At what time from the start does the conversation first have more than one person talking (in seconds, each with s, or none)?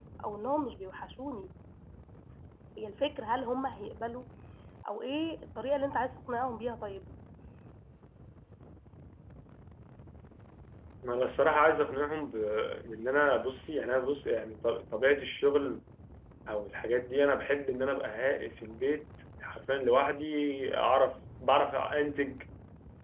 none